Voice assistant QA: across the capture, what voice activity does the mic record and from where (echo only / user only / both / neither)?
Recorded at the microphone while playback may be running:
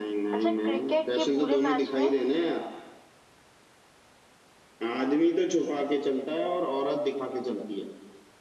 both